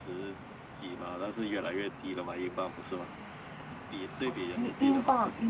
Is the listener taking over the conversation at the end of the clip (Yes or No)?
Yes